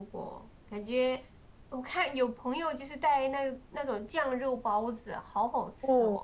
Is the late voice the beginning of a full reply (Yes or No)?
Yes